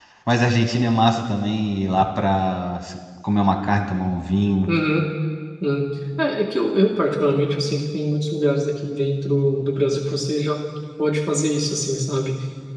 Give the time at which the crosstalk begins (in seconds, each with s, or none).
none